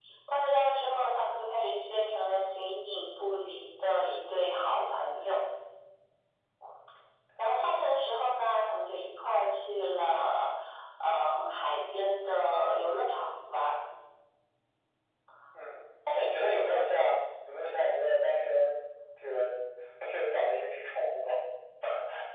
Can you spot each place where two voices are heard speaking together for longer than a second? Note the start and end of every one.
none

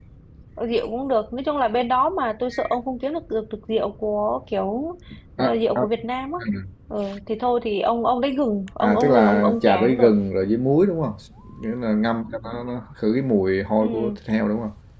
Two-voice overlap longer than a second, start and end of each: 8.8-10.1

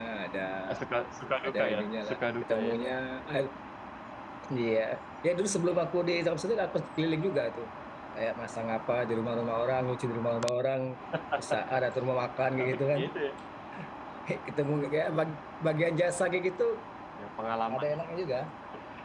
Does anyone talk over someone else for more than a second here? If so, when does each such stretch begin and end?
1.4-2.8

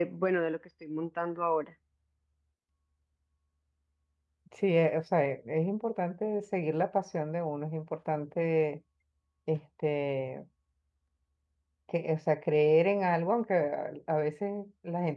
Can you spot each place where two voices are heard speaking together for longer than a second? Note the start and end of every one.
none

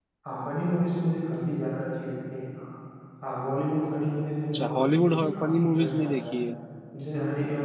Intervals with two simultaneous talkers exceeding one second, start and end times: 4.5-6.4

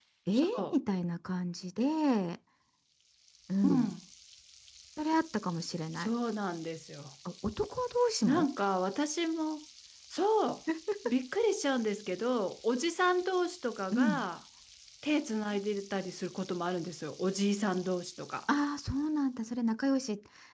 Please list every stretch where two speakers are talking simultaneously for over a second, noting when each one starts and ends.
none

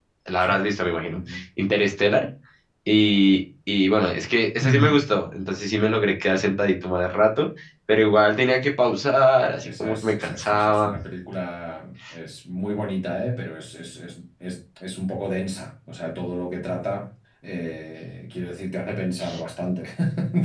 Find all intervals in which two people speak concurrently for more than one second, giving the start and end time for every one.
9.6-10.9

